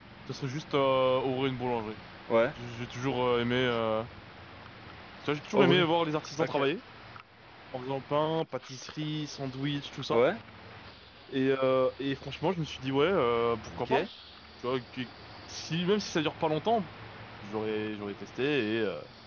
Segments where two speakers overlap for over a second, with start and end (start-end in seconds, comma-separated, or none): none